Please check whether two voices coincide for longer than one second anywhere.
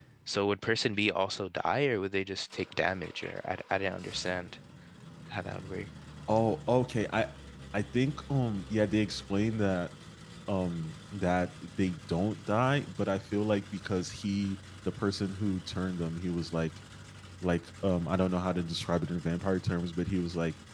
No

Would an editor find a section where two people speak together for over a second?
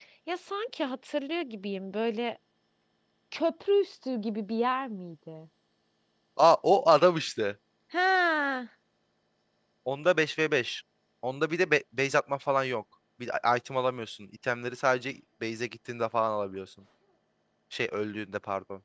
No

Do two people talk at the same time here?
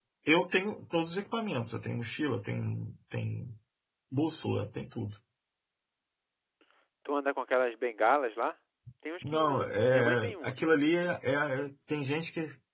Yes, from 9.2 s

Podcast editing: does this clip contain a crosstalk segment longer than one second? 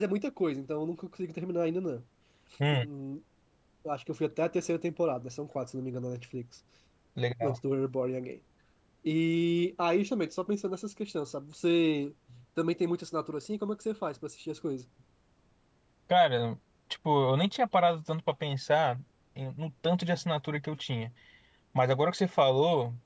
No

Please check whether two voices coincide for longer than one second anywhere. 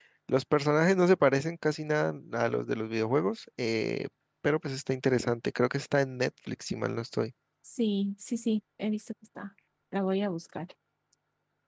No

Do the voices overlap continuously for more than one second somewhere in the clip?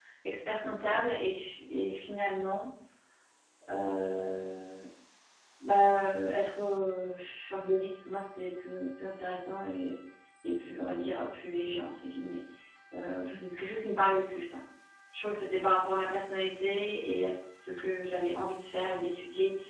No

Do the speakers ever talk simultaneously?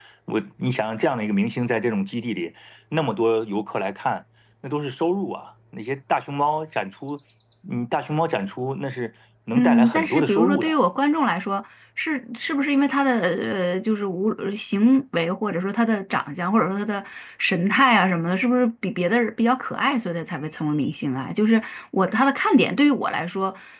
Yes, from 9.6 s

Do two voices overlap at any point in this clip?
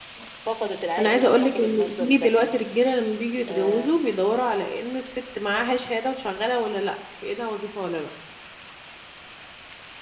Yes, from 1.0 s

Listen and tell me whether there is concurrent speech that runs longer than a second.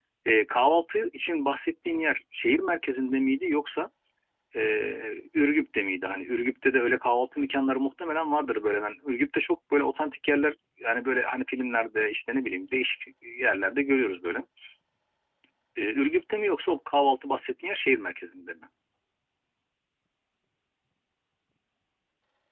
No

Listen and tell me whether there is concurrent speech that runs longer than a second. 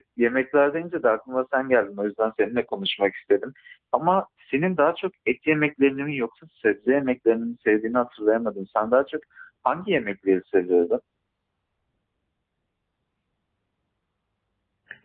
No

